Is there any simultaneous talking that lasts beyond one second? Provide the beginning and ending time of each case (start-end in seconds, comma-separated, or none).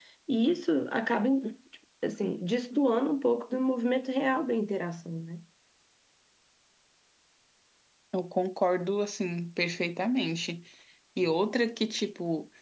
none